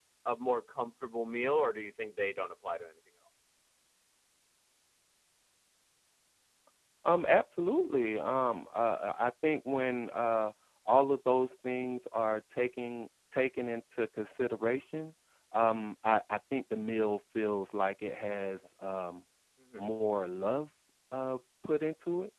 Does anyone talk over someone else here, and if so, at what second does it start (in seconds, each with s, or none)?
none